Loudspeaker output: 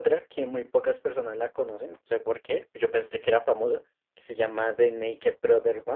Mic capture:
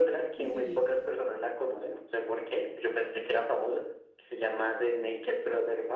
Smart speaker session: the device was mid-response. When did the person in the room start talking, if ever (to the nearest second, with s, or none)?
0 s